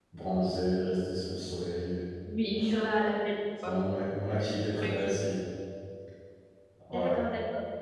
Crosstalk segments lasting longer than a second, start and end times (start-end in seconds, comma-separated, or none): none